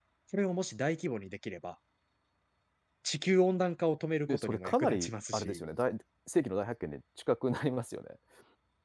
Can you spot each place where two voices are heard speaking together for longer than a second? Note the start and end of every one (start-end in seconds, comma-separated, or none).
4.3-5.6